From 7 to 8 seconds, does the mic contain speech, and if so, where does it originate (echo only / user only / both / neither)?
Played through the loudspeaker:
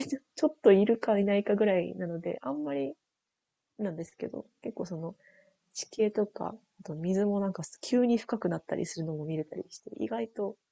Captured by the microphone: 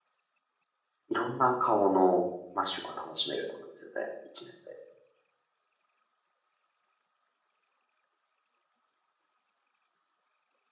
neither